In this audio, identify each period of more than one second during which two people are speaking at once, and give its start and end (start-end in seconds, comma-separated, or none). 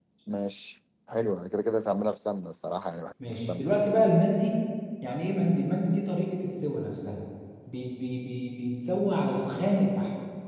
none